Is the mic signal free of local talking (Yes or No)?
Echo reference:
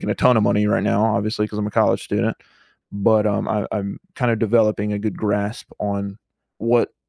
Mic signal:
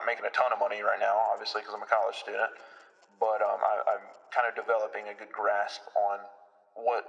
Yes